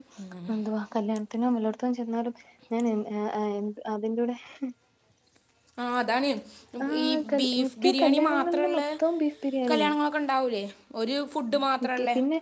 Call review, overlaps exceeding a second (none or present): present